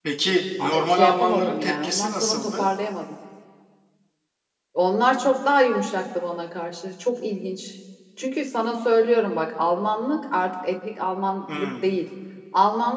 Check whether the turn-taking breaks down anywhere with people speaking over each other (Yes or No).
Yes